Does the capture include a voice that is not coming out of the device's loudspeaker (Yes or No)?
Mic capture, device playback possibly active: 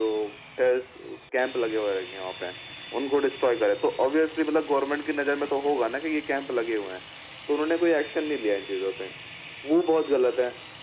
No